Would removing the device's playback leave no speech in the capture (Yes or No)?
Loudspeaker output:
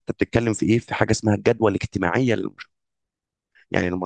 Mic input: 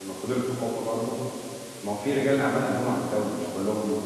No